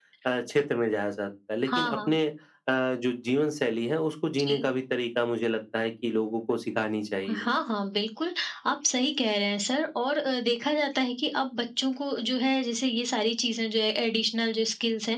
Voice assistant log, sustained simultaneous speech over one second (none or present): none